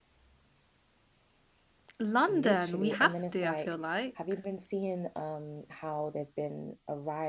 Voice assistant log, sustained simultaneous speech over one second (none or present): present